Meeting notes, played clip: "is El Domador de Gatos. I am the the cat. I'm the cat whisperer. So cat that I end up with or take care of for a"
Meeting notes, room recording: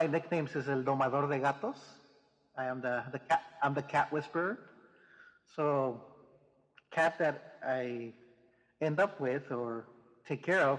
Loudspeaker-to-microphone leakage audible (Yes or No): Yes